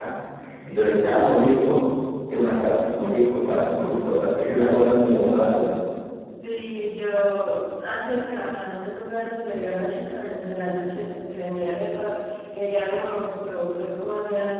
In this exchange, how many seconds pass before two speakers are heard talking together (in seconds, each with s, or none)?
none